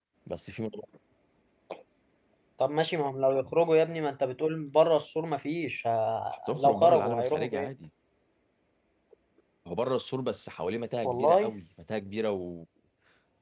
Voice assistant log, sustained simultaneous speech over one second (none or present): present